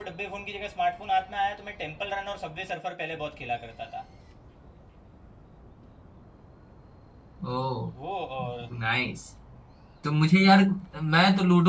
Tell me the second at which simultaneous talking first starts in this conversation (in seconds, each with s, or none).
none